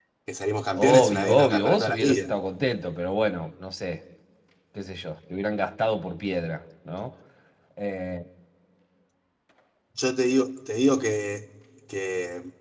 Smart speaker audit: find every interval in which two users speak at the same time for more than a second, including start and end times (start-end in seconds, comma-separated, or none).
0.8-2.3